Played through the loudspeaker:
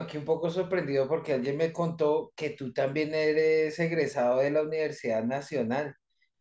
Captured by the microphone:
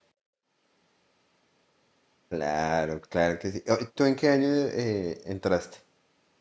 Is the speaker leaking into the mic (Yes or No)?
No